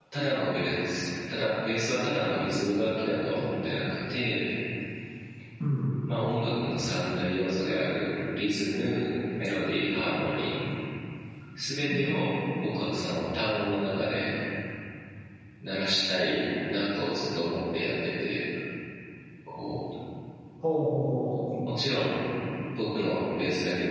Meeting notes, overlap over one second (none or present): none